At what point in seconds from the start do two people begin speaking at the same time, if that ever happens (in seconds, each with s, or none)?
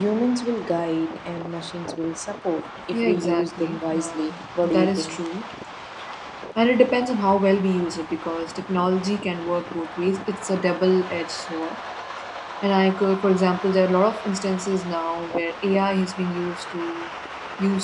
2.9 s